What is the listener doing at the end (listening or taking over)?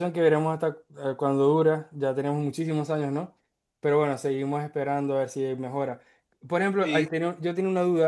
listening